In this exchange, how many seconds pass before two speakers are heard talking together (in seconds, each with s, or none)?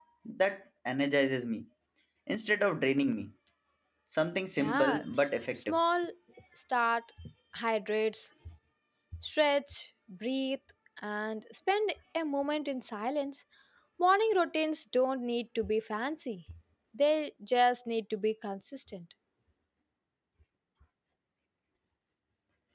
4.6 s